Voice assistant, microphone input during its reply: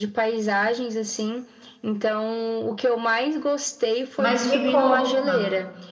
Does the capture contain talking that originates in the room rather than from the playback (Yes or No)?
Yes